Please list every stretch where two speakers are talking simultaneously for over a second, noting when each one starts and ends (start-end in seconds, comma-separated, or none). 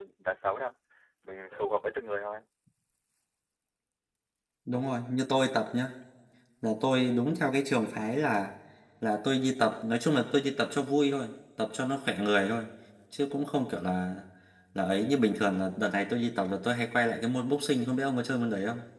none